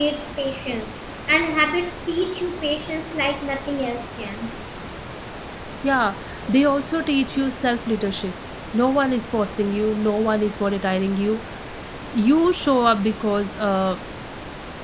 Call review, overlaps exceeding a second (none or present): none